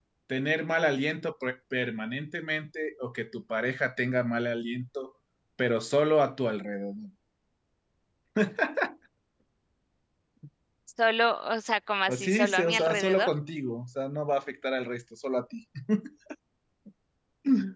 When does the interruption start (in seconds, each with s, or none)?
12.1 s